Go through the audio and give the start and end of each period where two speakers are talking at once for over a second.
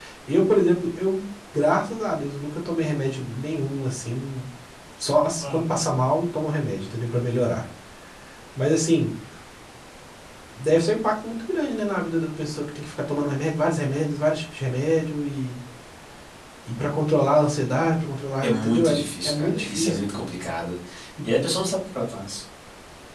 18.4-20.0

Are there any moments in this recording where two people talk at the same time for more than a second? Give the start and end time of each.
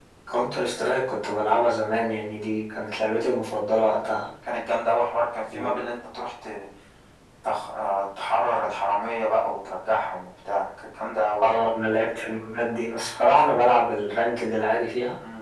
none

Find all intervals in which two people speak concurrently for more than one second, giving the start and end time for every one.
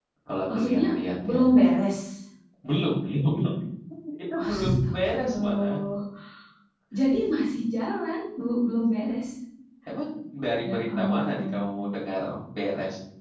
4.4-5.8, 10.6-11.9

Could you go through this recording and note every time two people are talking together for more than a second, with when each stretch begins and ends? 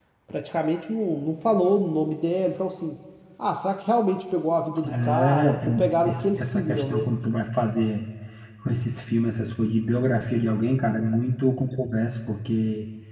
4.8-7.1

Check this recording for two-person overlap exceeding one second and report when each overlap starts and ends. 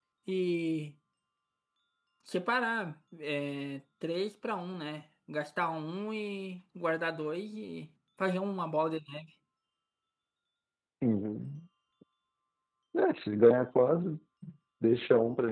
none

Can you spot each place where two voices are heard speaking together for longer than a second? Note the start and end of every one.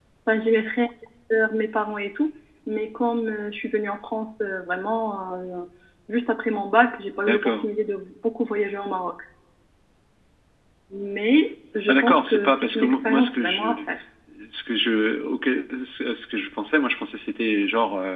11.9-13.8

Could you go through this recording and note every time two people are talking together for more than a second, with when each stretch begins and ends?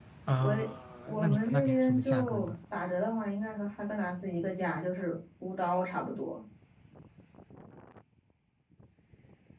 1.2-2.5

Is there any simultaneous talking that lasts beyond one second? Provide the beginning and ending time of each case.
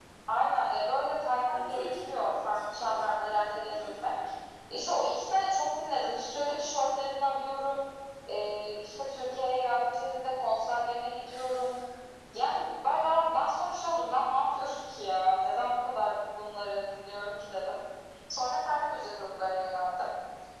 1.5-4.1

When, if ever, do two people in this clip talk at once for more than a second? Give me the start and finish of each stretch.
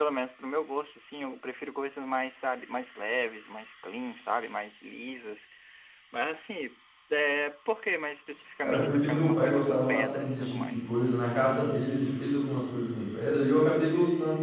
8.6-10.9

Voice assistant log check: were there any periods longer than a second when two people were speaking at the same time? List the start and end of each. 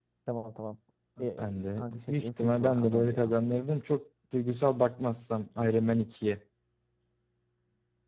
1.4-3.4

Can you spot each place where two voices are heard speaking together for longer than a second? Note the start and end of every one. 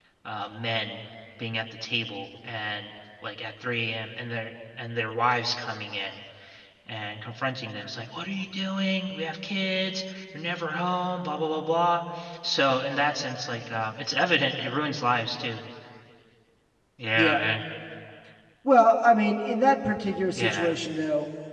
none

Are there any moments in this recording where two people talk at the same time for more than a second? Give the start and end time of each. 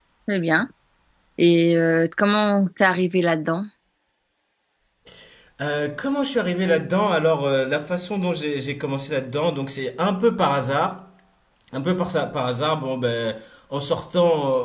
none

